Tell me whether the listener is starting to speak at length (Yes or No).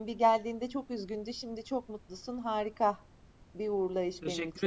Yes